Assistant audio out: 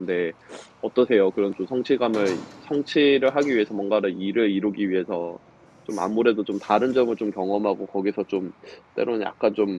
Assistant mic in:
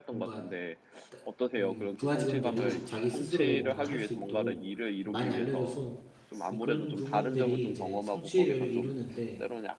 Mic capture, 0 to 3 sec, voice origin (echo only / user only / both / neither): both